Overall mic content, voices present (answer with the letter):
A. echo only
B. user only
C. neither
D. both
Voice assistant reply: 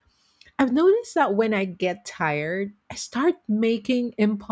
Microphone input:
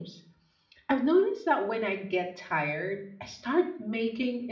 A